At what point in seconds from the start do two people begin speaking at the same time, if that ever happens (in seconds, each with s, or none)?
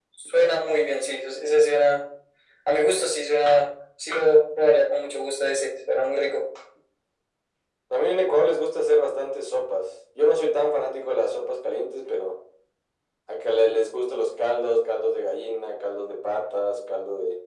none